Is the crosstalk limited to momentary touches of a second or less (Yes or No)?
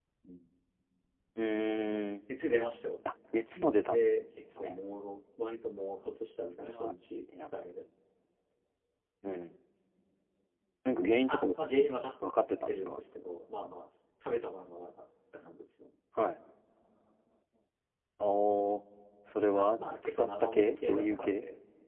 No